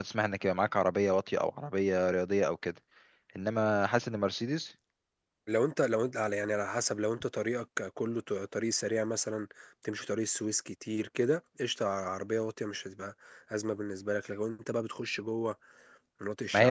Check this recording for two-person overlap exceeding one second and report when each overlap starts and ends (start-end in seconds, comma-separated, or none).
none